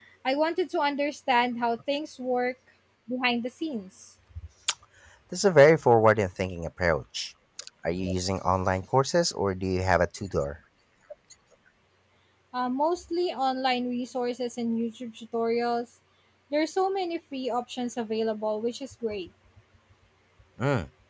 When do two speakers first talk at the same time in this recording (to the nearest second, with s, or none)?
none